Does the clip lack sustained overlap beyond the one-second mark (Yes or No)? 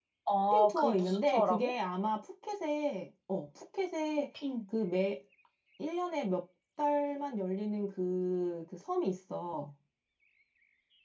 No